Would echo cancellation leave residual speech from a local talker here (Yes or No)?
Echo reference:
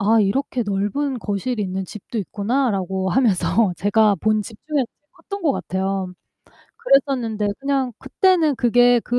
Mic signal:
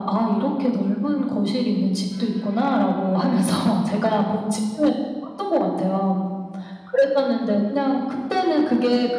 No